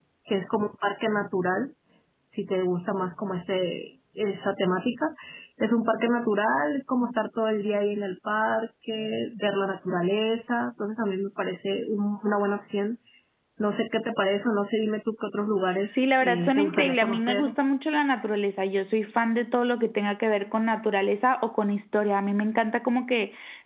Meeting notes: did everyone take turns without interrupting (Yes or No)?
No